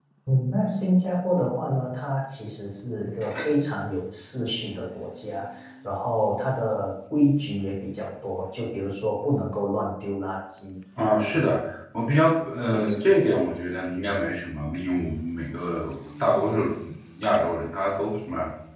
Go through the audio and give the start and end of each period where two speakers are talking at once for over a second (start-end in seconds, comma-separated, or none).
none